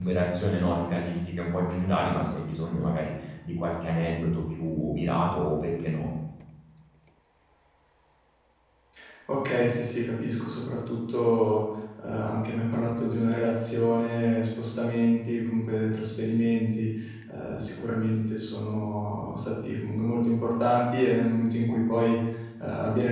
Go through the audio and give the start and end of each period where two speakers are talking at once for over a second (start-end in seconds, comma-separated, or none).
none